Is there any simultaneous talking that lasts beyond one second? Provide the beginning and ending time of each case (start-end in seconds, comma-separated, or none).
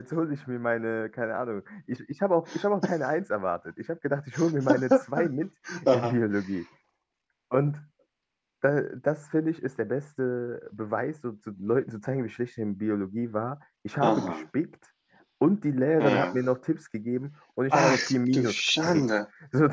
17.7-19.2